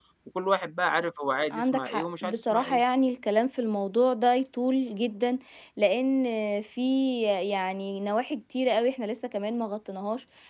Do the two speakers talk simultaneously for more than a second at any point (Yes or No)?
Yes